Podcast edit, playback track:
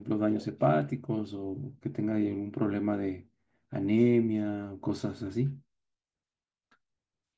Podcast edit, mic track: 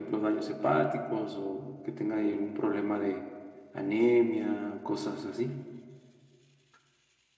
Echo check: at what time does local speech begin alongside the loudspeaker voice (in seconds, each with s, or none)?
none